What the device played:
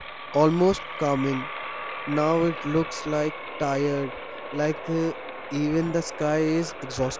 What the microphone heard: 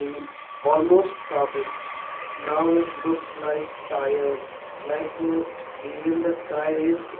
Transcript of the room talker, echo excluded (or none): none